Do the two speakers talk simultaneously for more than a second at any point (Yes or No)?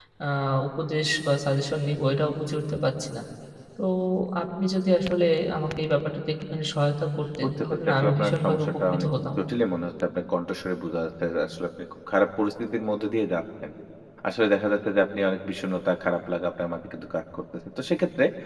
Yes